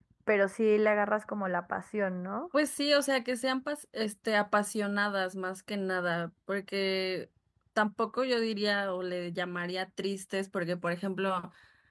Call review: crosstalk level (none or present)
none